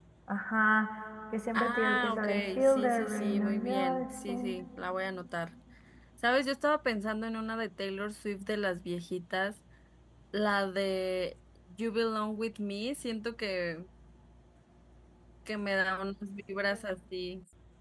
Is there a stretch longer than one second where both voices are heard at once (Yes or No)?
Yes